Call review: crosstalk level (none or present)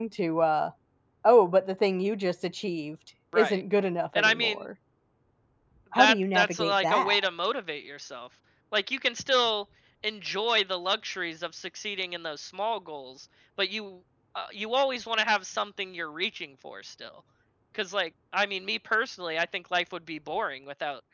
present